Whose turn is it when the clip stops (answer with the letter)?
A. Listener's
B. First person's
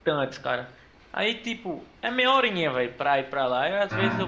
B